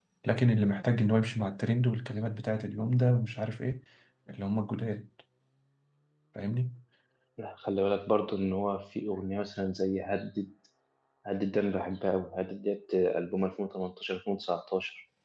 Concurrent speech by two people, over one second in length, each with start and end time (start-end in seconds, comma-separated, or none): none